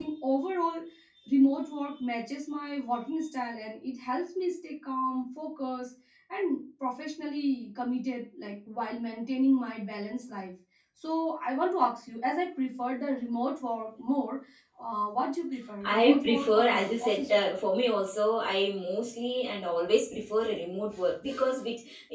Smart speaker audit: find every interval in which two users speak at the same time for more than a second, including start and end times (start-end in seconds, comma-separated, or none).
15.8-17.5